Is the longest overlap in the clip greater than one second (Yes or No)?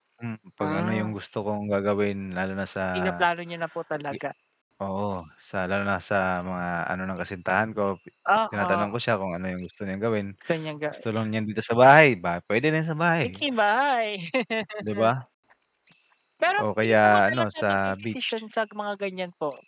Yes